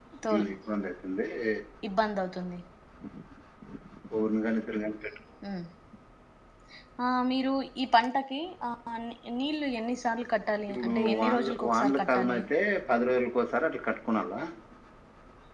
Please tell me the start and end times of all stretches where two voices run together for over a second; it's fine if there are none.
10.7-12.4

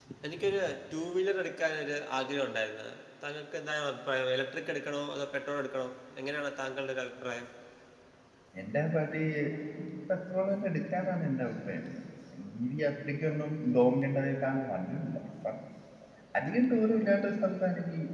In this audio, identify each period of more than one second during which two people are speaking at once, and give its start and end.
none

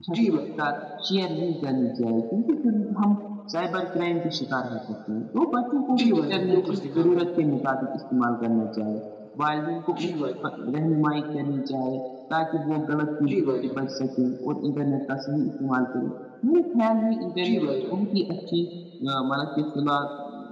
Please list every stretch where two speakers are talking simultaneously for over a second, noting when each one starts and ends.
6.0-7.2

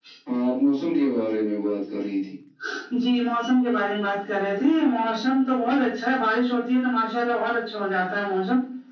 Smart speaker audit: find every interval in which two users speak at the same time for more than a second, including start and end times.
none

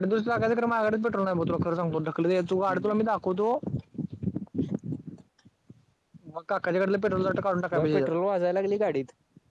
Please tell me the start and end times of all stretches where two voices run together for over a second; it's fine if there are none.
none

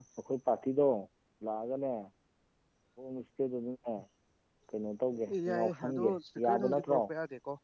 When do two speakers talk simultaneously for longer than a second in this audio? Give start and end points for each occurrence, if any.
5.3-7.0

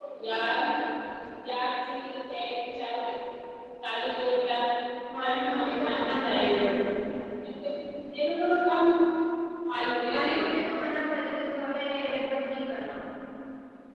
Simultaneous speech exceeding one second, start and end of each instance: 5.2-6.7

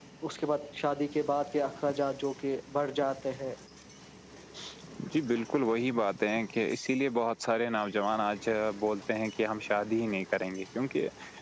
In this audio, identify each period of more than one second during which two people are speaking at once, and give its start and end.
none

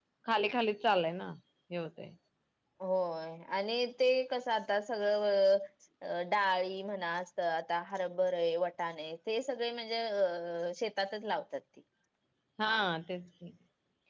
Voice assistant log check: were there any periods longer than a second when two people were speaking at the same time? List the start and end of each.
none

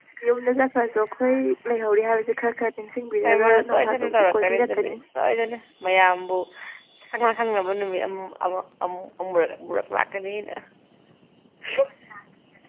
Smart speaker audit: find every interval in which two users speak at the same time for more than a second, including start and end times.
3.2-4.9

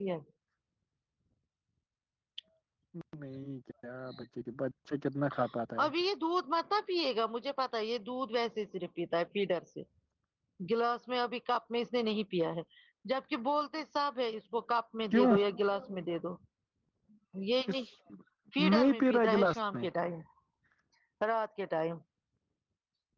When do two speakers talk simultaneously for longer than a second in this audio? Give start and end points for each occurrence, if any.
18.6-19.8

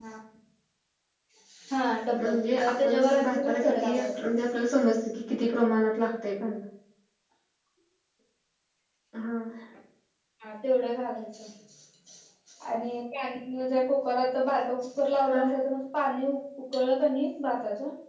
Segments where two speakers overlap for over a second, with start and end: 2.1-4.3

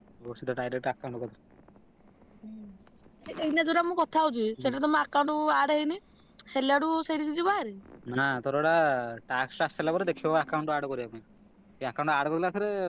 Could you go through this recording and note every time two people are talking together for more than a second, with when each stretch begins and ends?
none

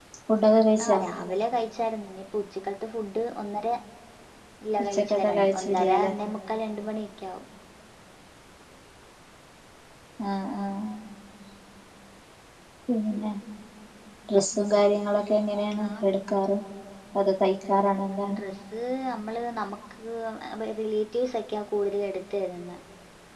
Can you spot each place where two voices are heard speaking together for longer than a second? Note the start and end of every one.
4.8-6.1

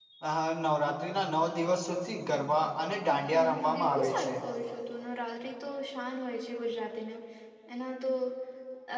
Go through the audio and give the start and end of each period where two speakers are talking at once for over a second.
3.1-4.3

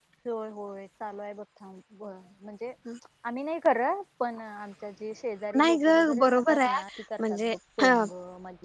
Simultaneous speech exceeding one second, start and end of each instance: 5.6-6.8

